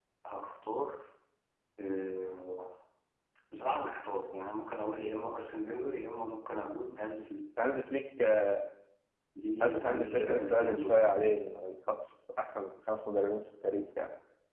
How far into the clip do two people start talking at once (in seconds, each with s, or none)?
9.6 s